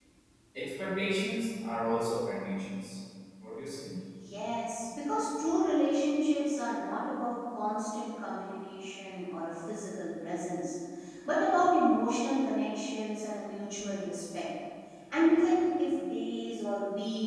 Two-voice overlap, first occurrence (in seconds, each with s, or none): none